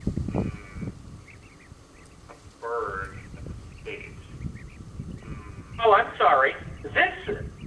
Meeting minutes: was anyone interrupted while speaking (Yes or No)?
No